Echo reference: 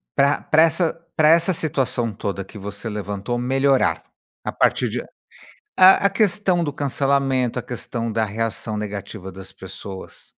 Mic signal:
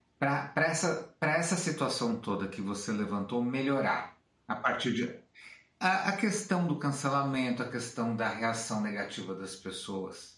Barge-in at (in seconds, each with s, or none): none